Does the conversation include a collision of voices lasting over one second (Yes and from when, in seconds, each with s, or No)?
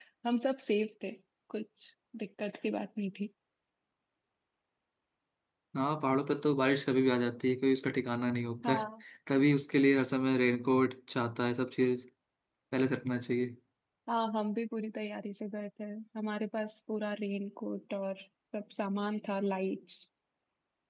No